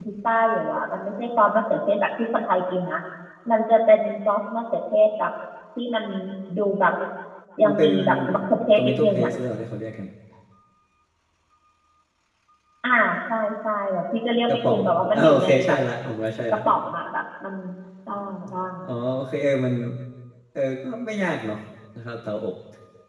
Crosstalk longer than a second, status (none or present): present